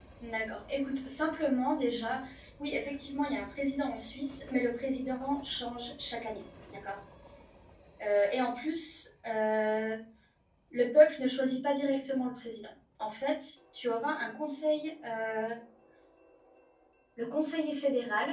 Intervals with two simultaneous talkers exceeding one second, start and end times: none

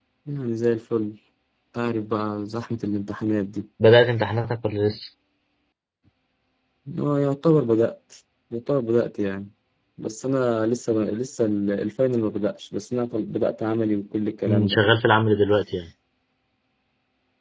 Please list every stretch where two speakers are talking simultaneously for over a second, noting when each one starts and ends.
none

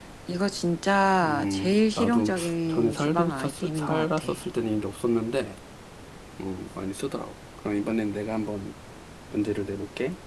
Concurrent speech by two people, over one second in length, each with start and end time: 1.2-4.3

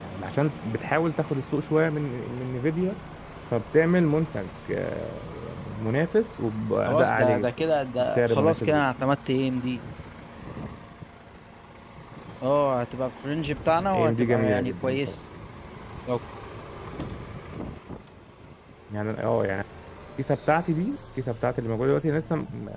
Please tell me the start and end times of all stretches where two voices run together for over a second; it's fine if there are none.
6.9-8.8, 13.9-15.1

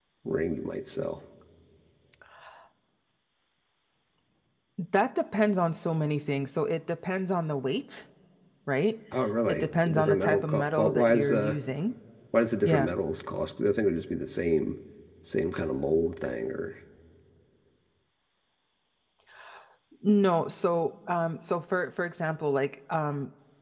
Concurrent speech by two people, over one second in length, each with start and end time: 9.4-11.6

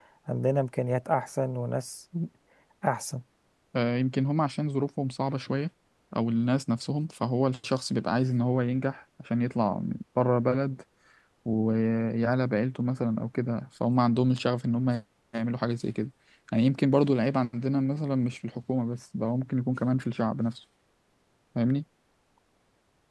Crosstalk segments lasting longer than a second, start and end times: none

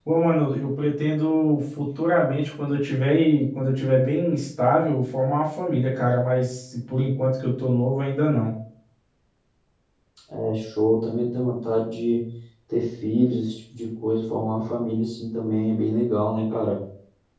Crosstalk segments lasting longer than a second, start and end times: none

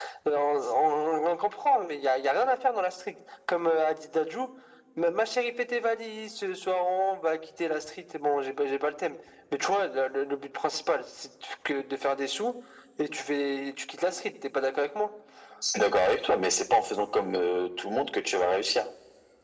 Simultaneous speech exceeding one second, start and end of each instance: none

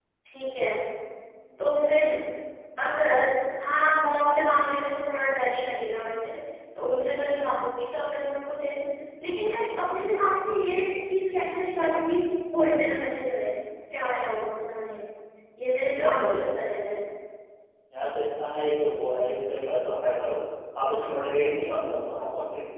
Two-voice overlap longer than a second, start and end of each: none

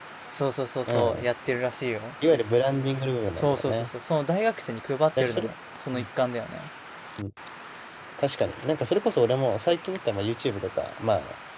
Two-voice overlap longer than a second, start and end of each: none

